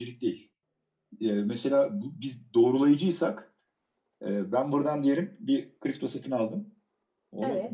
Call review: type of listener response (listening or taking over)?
listening